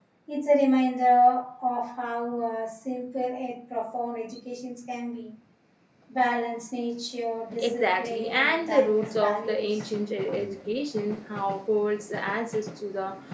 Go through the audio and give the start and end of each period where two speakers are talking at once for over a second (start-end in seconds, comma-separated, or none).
7.6-9.9